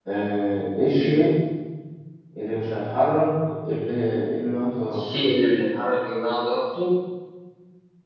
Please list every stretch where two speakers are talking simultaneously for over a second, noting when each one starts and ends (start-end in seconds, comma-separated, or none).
none